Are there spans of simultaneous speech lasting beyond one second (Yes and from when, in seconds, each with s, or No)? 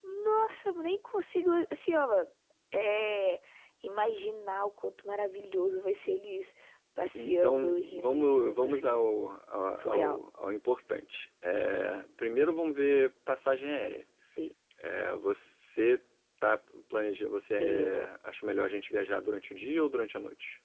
Yes, from 7.2 s